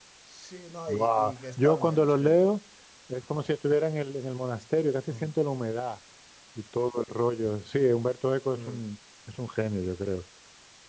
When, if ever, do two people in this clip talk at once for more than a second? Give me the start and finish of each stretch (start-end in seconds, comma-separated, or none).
0.9-2.5